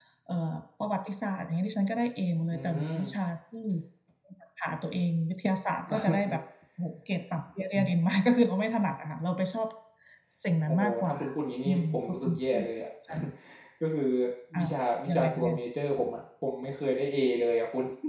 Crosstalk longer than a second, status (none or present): present